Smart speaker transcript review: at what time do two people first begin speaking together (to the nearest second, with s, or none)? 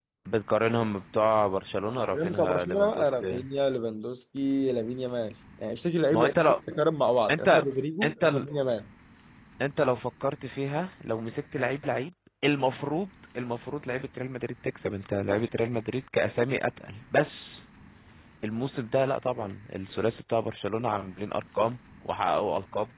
2 s